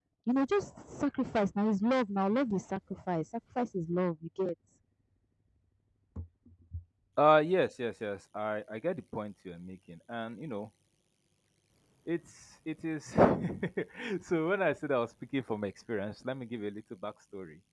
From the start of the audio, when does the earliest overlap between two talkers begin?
none

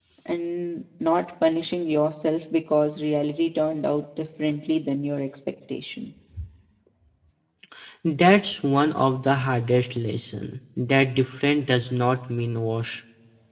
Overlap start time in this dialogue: none

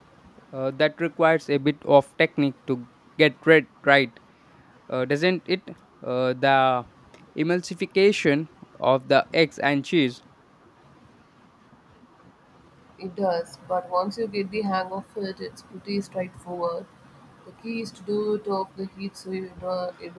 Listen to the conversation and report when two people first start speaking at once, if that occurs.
none

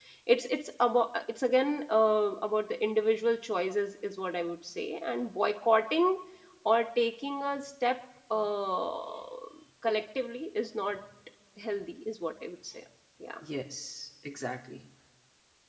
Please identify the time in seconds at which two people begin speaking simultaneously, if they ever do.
none

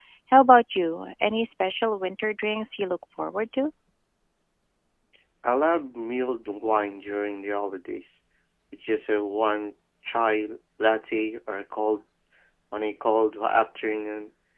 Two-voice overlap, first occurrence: none

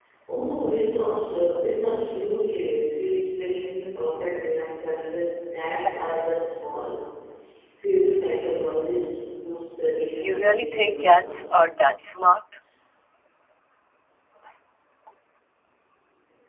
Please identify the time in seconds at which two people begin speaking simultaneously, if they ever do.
10.2 s

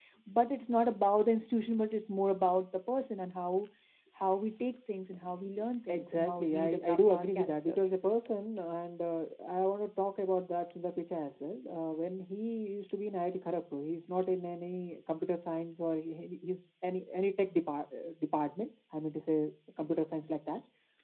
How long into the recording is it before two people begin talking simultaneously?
5.9 s

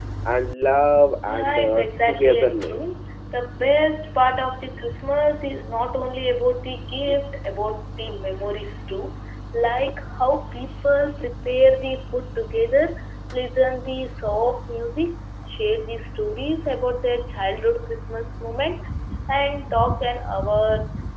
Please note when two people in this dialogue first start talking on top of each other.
1.2 s

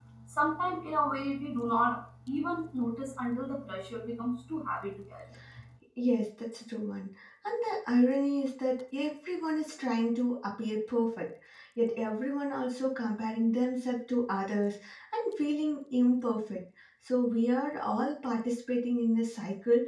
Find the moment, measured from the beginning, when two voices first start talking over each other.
none

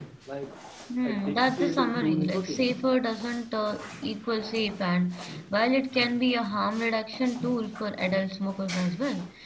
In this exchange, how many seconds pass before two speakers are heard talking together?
1.0 s

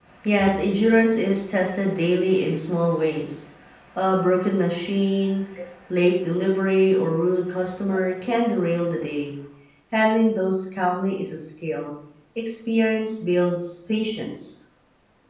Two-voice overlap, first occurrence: none

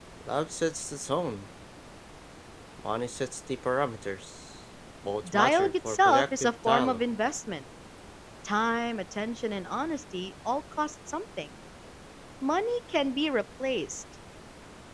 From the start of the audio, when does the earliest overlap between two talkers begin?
5.2 s

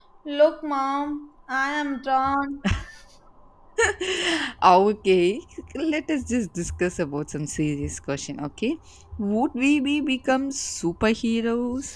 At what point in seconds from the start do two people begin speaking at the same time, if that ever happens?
none

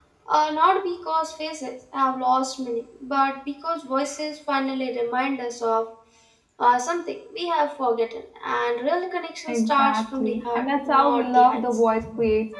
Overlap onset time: 9.5 s

